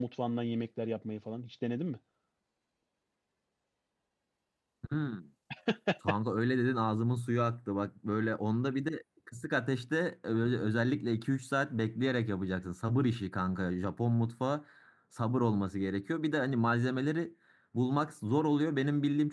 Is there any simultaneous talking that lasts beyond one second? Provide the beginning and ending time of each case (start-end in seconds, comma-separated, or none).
none